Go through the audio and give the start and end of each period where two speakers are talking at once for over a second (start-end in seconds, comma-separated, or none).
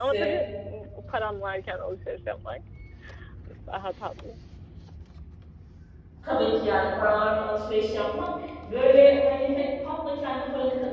none